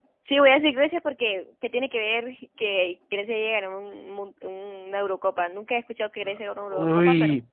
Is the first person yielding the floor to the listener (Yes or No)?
Yes